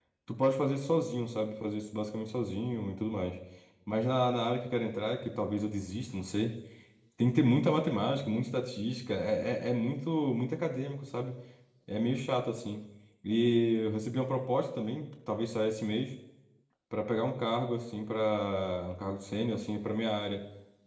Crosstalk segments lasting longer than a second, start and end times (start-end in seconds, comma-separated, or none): none